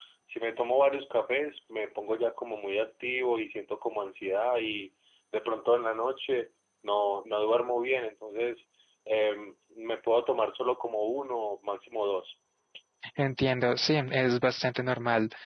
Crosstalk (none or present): none